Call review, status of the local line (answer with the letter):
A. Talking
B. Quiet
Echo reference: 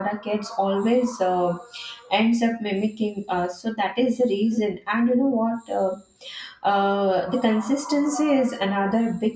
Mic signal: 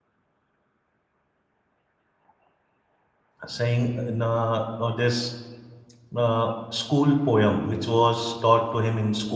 A